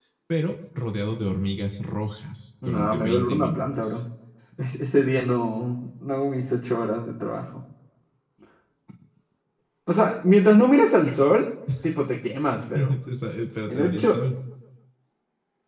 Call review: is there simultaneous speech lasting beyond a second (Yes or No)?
Yes